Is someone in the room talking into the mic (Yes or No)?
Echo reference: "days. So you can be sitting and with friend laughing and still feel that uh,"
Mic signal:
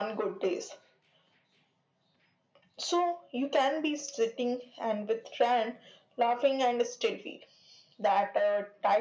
No